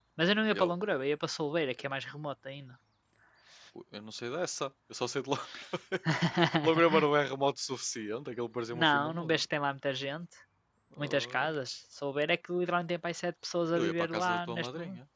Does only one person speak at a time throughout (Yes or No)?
No